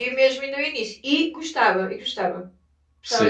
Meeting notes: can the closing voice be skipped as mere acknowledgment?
No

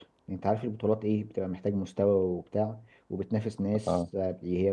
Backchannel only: Yes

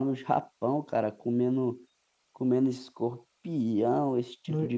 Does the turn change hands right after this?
No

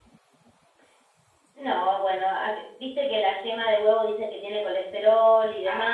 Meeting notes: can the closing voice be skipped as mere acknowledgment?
No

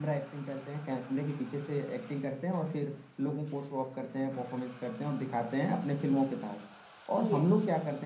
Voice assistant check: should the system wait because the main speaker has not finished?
Yes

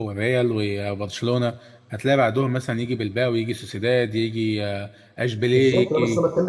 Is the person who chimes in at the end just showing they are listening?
No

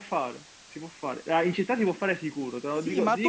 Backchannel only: No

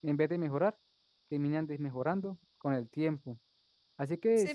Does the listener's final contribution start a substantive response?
Yes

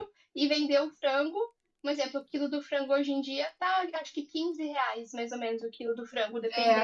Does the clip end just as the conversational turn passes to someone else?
Yes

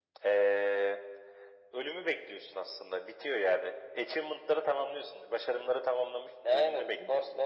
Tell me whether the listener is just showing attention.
No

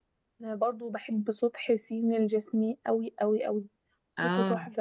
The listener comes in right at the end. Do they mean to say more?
No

